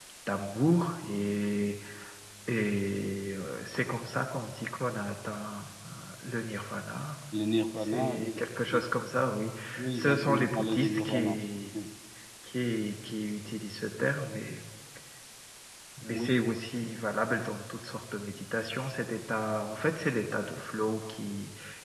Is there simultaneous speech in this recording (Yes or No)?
Yes